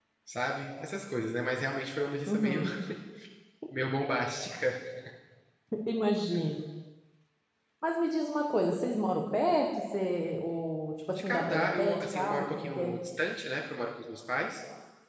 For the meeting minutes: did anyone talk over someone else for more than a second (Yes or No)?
Yes